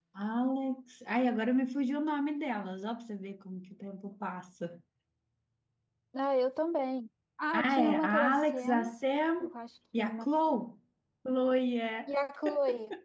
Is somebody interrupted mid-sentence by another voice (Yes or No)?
Yes